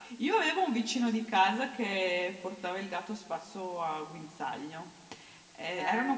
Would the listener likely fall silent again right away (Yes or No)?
Yes